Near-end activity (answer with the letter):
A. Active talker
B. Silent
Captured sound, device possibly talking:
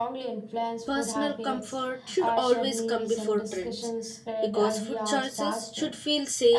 A